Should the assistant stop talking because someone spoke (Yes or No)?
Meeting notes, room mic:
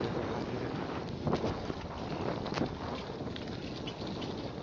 No